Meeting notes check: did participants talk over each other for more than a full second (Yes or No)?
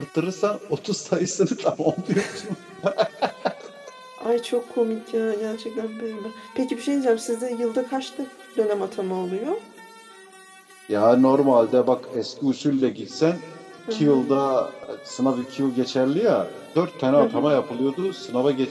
No